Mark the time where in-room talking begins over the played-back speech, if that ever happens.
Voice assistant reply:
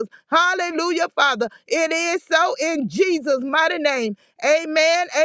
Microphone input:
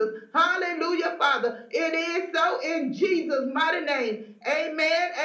none

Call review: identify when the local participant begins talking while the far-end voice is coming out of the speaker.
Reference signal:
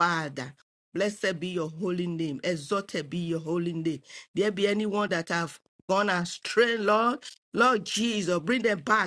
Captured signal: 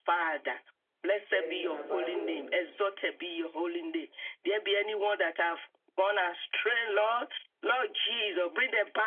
1.3 s

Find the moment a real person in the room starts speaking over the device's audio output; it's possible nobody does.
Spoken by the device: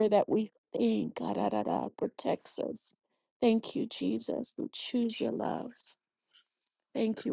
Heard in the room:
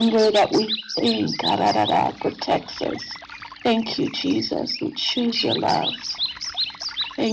none

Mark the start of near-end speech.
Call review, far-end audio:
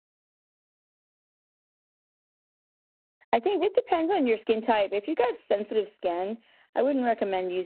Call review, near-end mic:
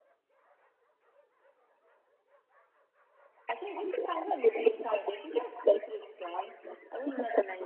none

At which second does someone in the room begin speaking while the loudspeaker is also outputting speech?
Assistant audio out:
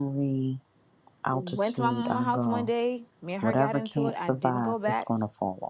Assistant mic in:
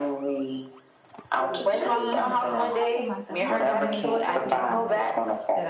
1.7 s

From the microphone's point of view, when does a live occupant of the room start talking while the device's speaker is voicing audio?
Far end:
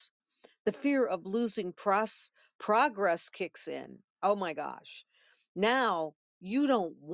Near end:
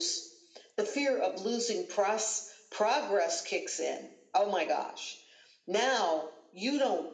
none

